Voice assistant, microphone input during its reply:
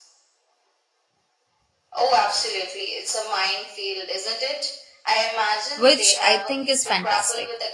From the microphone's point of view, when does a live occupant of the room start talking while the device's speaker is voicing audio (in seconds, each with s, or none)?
5.7 s